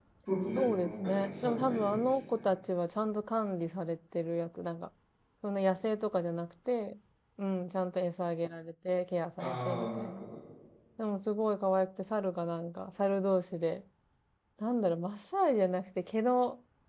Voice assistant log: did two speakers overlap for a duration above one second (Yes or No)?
Yes